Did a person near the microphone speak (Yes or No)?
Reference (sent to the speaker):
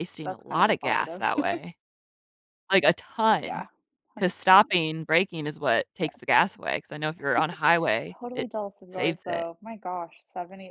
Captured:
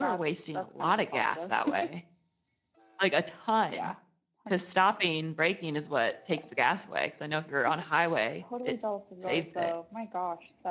No